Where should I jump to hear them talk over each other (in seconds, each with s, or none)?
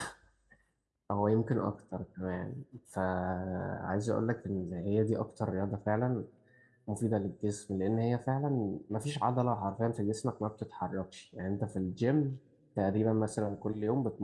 none